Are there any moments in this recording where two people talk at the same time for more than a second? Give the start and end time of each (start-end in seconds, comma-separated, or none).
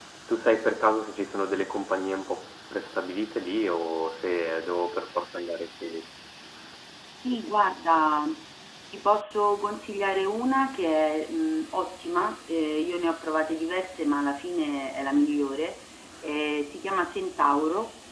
none